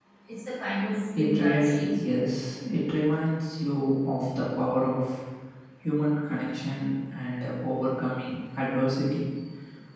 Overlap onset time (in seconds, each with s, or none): 1.1 s